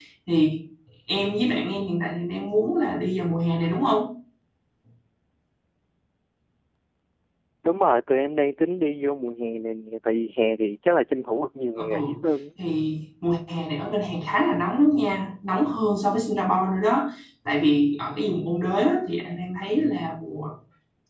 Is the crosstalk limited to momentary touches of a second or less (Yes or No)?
Yes